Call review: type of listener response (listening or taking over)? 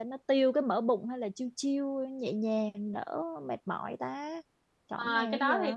taking over